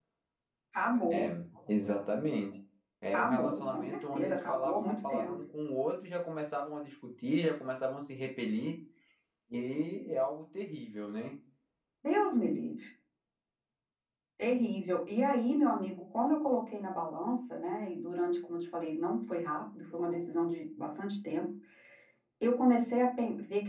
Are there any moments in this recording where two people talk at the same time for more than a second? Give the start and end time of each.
3.1-5.4

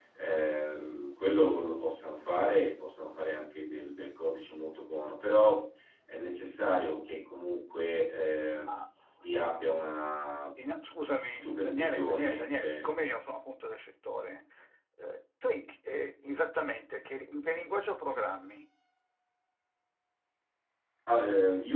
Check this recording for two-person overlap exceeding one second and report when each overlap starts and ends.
11.3-12.9

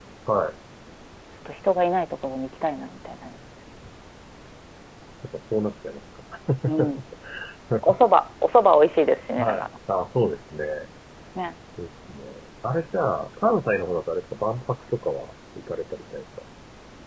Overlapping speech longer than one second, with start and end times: none

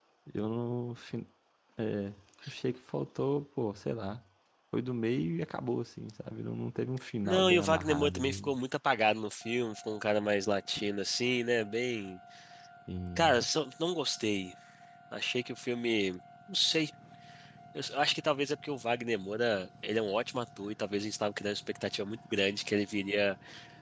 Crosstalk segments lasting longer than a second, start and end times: 7.2-8.5

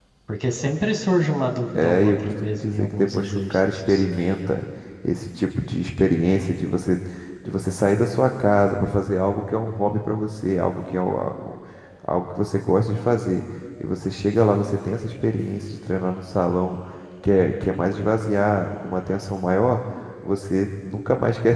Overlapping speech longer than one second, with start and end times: 1.7-4.0

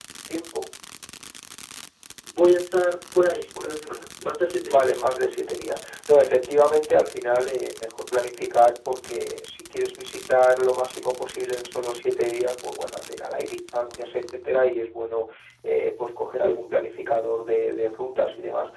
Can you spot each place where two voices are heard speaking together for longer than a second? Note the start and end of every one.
none

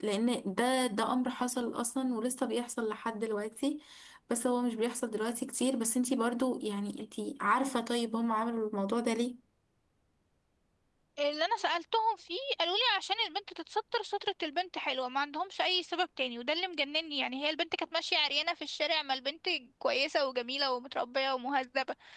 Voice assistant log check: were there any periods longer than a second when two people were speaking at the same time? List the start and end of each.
none

